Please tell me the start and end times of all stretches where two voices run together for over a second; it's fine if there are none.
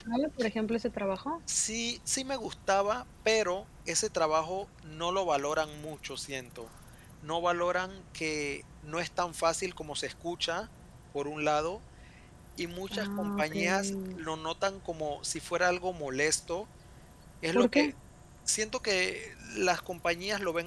13.0-14.2

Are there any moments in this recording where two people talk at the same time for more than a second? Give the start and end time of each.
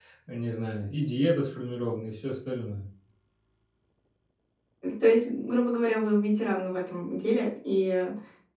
none

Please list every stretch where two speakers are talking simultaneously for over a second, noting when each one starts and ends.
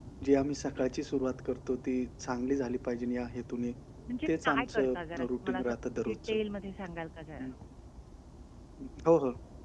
4.3-6.4

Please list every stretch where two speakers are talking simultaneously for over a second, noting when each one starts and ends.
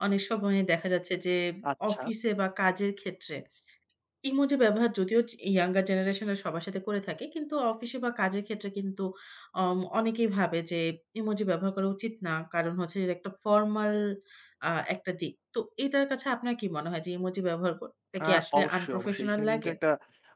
18.2-19.7

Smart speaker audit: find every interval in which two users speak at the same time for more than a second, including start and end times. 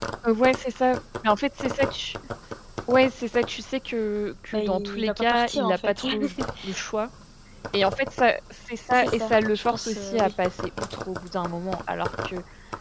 4.5-6.0, 8.9-10.3

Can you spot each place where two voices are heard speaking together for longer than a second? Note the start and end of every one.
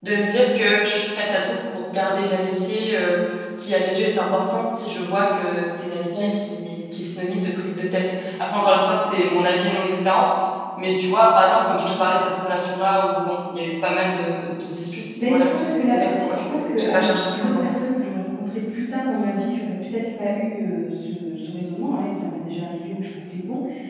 15.2-17.6

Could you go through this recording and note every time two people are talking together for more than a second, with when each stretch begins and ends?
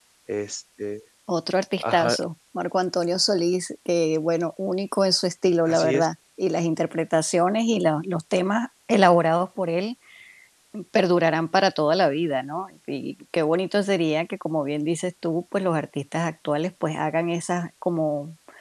none

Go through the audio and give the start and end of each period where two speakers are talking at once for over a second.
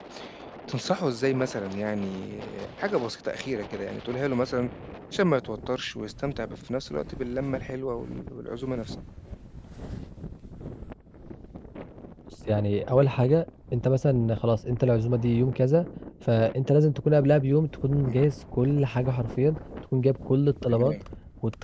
none

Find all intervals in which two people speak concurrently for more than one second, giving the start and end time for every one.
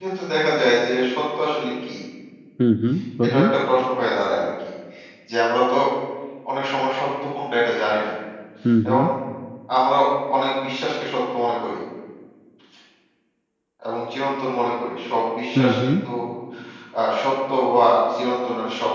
none

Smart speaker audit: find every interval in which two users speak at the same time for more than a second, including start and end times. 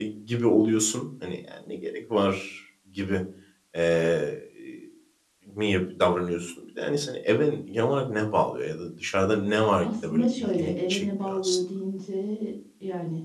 9.8-11.6

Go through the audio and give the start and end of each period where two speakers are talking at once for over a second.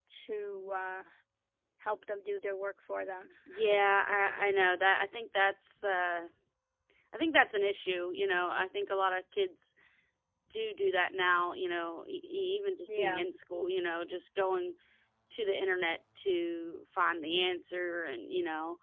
none

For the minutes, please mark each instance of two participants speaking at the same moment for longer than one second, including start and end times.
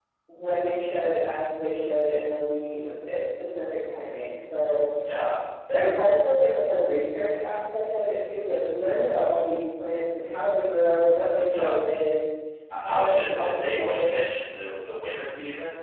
12.9-14.2

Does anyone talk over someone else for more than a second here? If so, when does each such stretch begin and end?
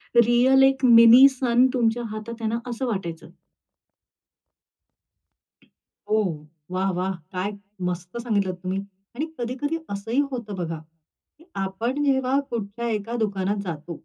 none

